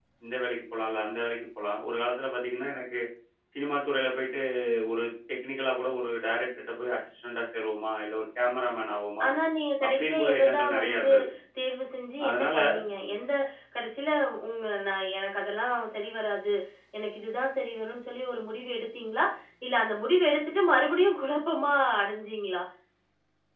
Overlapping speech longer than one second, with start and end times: 9.9-11.1

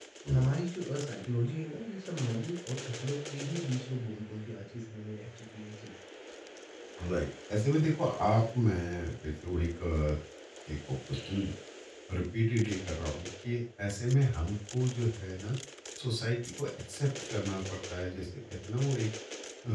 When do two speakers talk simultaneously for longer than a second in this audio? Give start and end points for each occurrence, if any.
none

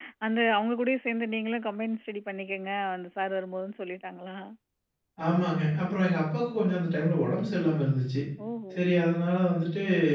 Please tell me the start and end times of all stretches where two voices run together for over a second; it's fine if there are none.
none

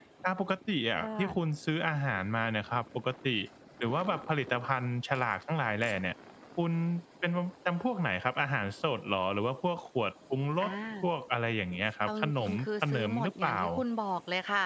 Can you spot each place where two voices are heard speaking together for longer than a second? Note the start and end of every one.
12.1-13.6

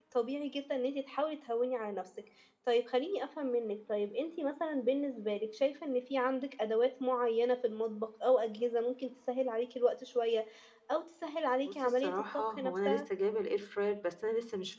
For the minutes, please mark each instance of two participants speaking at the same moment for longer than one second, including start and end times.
11.6-13.0

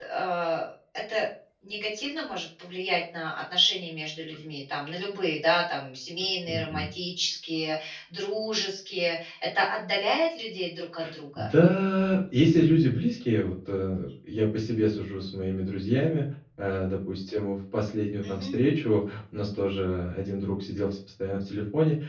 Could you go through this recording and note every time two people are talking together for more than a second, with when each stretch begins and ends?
none

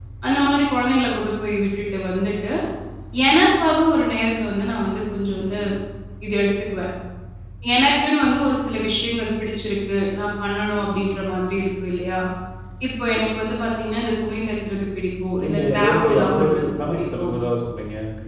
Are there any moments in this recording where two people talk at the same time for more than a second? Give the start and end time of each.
15.4-17.3

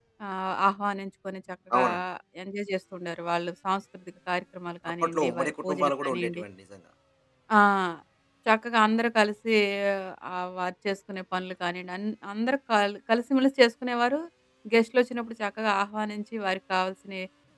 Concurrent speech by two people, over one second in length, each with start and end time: 5.0-6.4

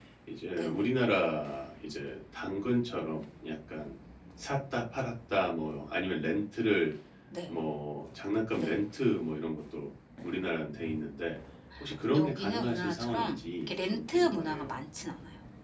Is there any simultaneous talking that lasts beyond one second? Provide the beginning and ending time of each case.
12.1-14.8

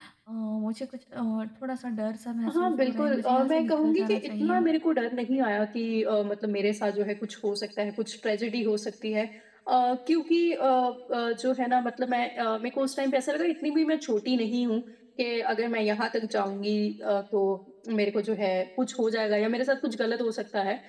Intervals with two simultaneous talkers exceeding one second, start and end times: 2.5-4.7

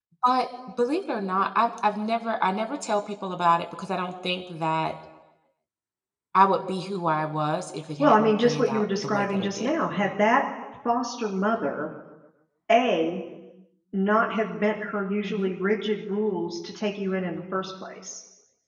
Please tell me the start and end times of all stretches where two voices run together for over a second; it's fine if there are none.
8.0-9.7

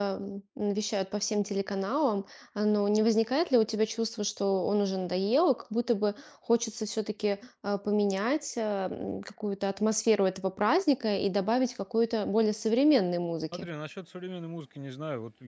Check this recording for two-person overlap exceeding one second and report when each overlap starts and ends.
none

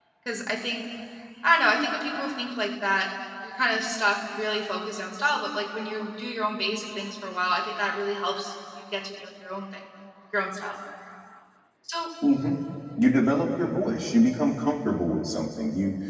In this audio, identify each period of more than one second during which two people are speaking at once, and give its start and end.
none

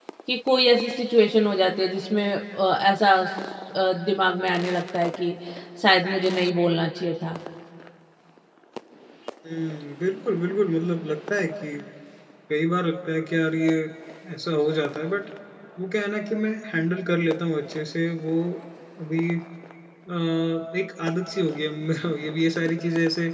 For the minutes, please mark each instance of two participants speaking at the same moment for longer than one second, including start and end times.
none

